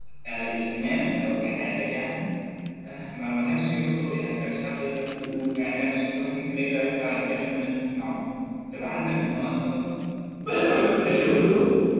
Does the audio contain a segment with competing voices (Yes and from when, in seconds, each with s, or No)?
No